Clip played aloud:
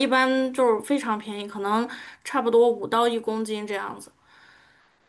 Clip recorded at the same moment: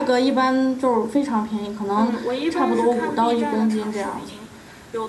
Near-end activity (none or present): present